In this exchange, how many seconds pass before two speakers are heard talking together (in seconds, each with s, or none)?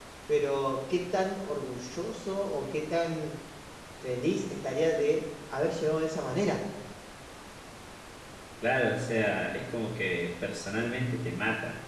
none